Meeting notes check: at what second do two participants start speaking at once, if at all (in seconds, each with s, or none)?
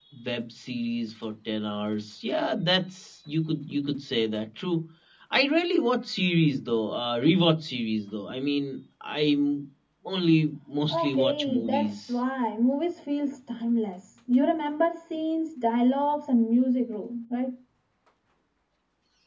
10.9 s